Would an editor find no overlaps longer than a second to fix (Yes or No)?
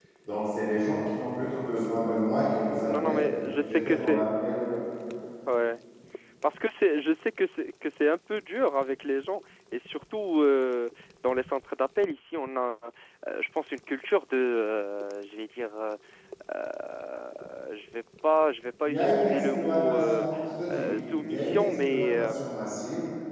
No